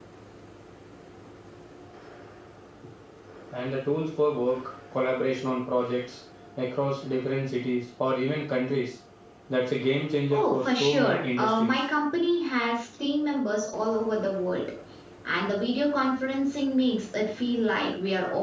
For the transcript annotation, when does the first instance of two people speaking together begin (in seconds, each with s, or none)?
10.3 s